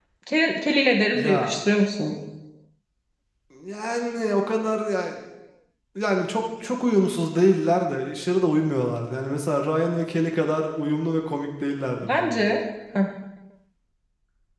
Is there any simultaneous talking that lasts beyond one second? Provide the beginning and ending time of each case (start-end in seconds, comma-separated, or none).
none